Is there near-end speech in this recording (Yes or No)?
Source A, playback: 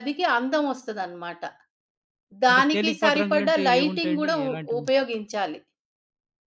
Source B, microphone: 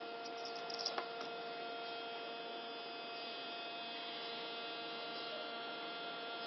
No